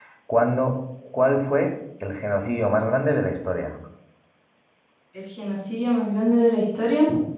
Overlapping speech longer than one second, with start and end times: none

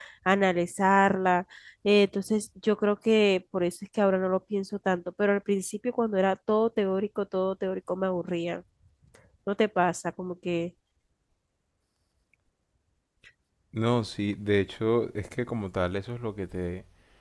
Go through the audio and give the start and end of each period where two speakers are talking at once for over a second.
none

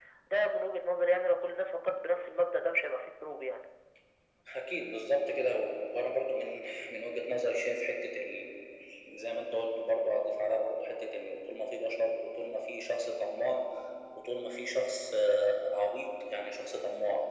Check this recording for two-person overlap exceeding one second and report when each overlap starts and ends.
none

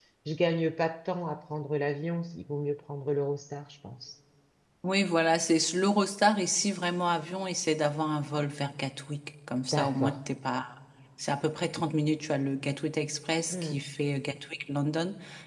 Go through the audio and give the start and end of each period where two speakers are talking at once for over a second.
none

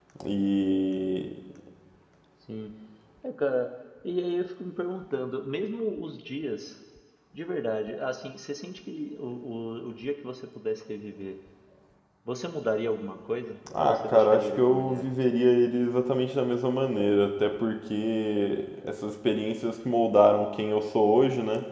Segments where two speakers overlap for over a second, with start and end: 13.8-15.1

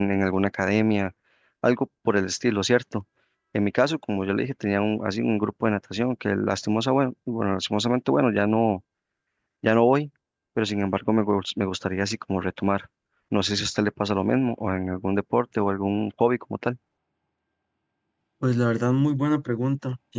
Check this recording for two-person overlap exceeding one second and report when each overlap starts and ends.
none

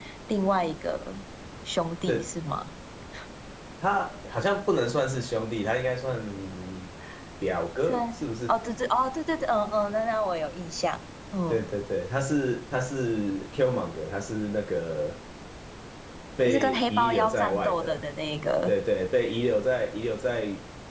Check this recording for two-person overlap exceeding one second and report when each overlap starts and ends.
16.4-18.0

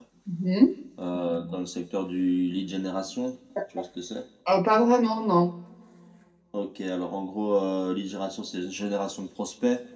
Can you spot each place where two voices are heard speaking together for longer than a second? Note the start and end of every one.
none

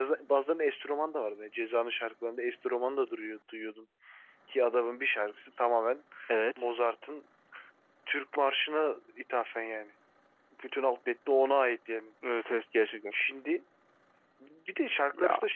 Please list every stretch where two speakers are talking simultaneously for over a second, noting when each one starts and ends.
none

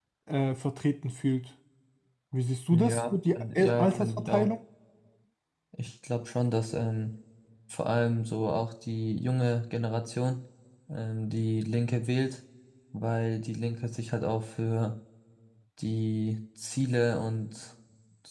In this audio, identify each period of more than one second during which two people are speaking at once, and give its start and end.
2.7-4.5

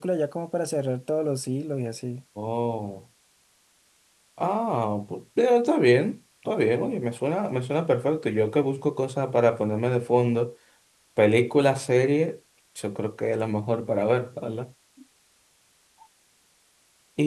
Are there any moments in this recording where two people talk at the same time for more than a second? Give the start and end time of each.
none

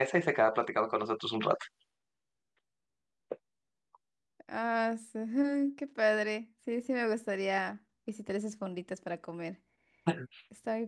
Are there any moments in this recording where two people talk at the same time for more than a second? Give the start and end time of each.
none

